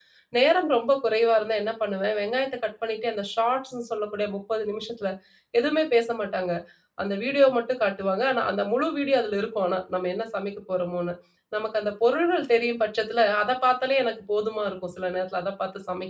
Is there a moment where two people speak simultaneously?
No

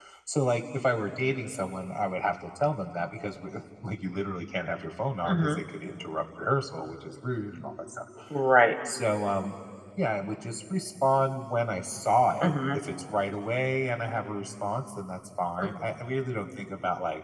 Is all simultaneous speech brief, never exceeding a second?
Yes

